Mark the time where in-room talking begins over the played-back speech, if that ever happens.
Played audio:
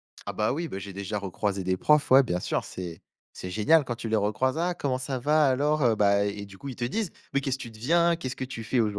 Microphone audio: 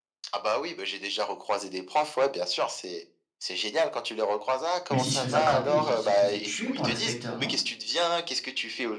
4.9 s

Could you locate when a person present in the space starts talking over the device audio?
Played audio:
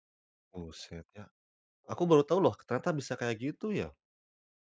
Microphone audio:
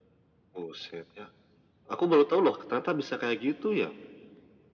none

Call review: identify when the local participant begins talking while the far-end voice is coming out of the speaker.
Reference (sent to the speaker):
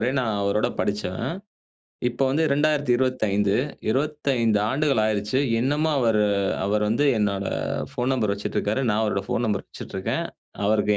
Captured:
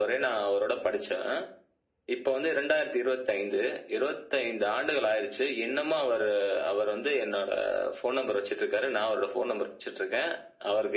none

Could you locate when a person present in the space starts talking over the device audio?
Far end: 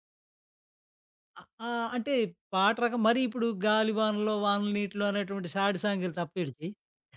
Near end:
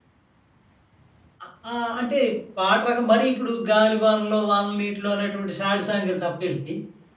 none

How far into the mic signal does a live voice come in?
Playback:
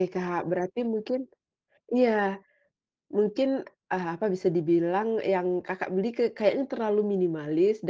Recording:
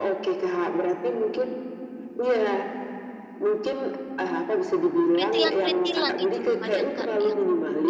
5.1 s

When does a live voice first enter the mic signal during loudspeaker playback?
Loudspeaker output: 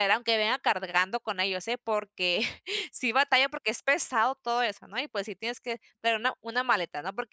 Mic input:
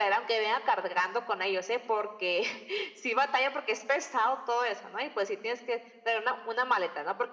none

